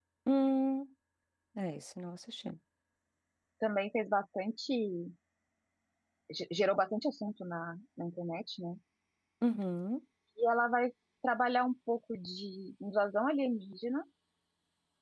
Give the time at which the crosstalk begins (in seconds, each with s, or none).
none